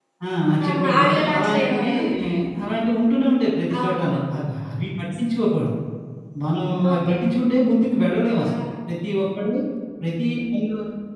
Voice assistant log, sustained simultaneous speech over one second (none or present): present